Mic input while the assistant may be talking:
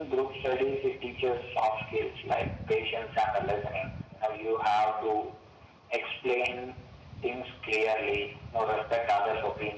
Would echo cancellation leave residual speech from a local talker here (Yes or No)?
No